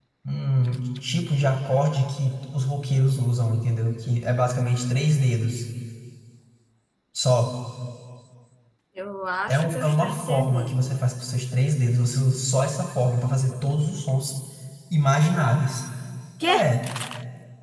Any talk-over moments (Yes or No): Yes